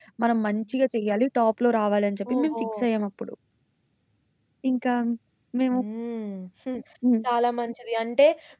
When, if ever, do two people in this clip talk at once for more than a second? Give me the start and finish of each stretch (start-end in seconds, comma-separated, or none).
none